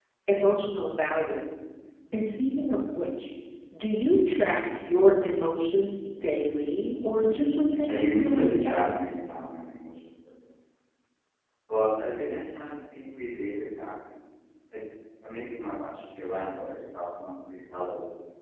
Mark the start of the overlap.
8 s

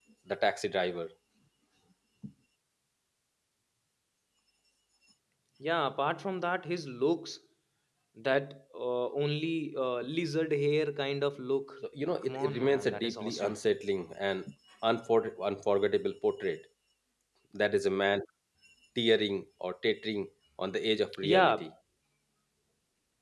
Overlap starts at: 12 s

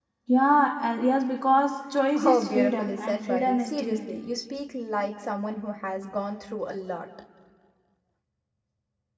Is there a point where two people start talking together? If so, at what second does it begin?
2 s

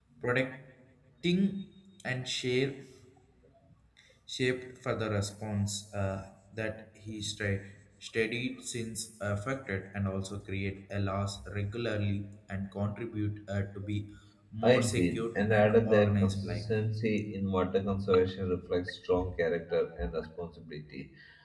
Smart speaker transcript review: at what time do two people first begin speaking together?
15 s

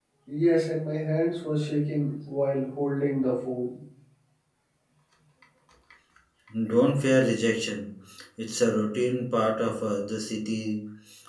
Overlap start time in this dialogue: none

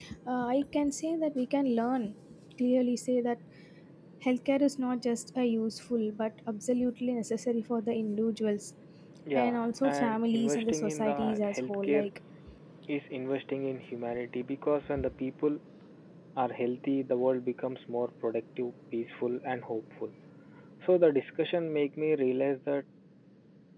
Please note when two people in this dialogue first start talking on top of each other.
9 s

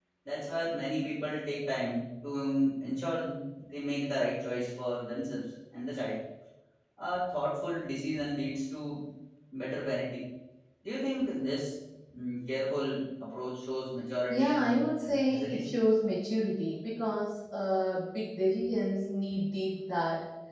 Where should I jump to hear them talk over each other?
14 s

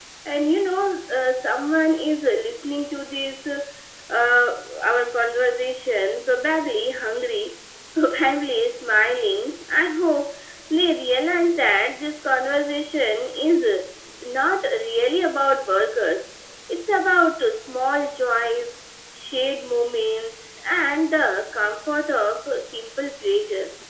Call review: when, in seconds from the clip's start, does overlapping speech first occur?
none

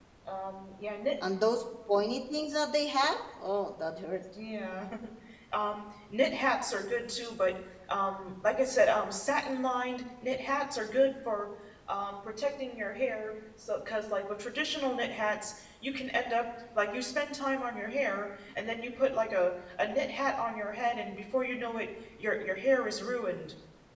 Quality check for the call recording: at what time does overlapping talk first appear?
none

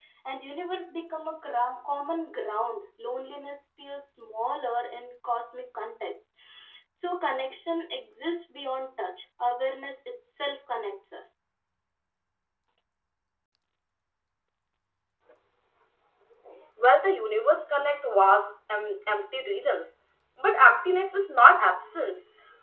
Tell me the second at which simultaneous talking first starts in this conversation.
none

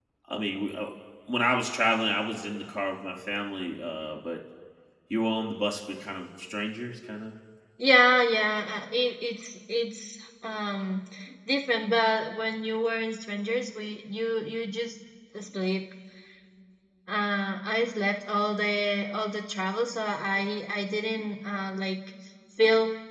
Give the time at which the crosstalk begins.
none

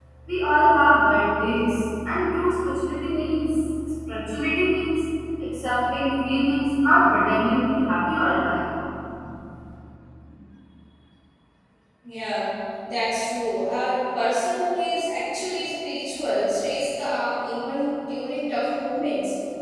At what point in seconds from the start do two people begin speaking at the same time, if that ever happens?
none

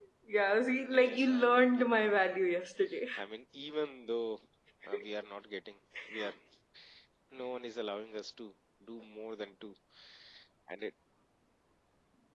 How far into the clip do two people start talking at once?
1 s

